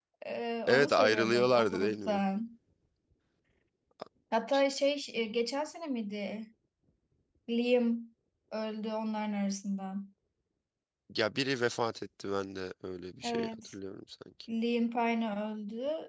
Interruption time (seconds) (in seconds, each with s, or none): 0.7 s